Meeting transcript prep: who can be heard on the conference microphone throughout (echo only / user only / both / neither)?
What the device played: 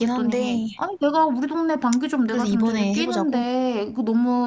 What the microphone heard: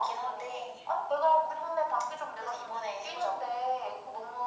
echo only